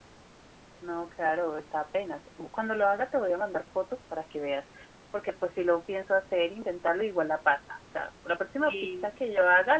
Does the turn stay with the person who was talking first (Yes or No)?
Yes